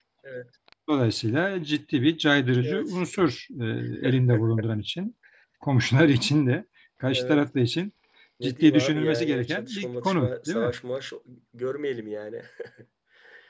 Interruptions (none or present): present